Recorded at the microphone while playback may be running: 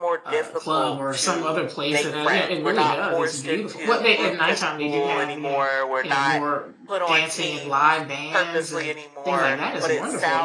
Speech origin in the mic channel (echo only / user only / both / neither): both